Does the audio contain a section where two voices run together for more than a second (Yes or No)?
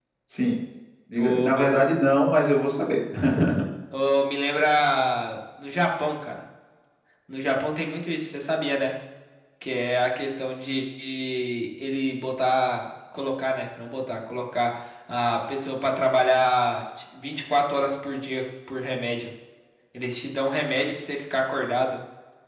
No